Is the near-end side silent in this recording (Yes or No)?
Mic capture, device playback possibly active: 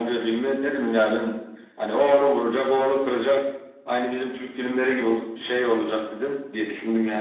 Yes